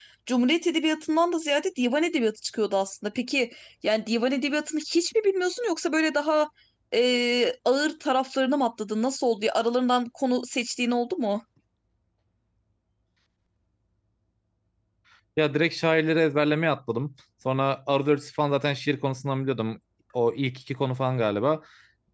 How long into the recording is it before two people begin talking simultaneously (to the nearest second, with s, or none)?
none